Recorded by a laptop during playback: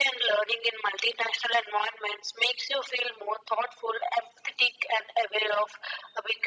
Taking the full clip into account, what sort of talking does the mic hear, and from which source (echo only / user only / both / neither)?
echo only